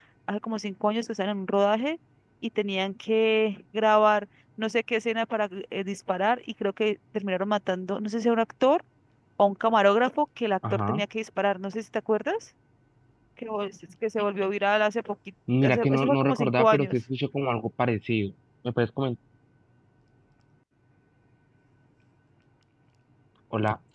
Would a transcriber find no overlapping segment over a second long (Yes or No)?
No